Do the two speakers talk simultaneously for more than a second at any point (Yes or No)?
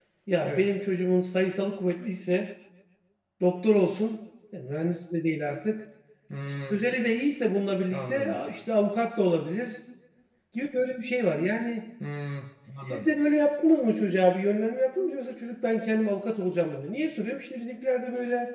No